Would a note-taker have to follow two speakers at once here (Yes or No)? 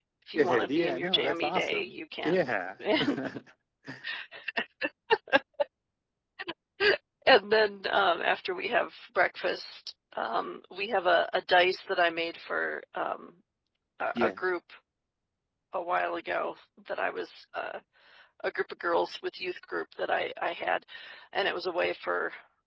Yes